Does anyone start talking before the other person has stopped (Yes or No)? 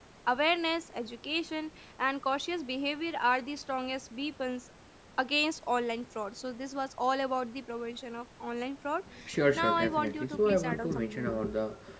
Yes